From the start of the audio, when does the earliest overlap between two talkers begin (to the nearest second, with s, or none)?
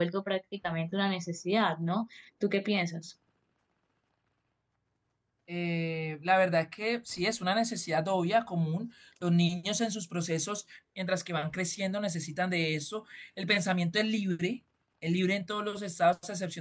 none